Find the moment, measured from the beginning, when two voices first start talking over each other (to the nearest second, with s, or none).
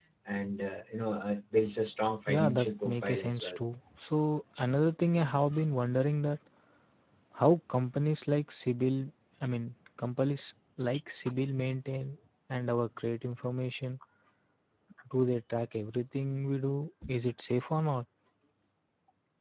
2 s